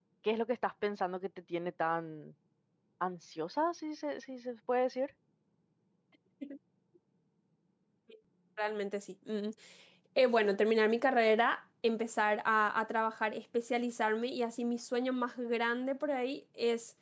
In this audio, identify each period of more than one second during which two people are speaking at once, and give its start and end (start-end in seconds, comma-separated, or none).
none